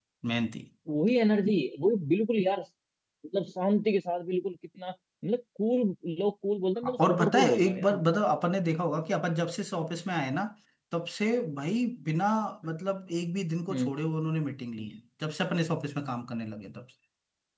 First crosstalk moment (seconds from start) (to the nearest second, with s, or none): 7 s